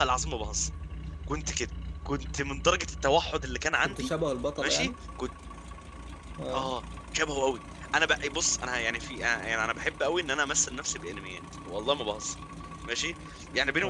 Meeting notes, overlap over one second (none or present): none